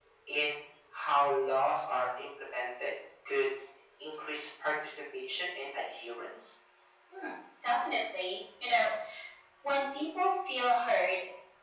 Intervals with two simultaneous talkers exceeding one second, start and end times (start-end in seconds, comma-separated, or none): none